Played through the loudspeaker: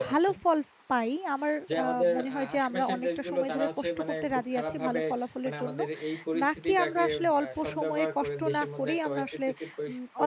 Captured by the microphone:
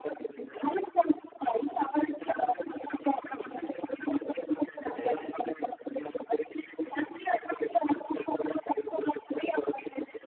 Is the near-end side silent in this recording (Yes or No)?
No